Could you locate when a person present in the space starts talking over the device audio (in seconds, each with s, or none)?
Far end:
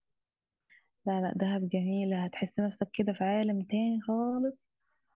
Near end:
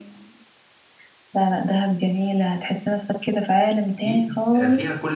4.0 s